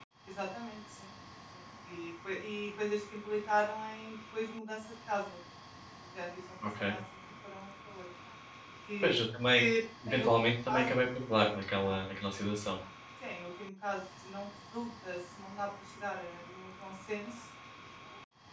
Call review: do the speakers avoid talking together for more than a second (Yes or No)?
Yes